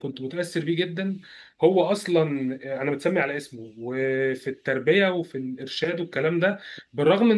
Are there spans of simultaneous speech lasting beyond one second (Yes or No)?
No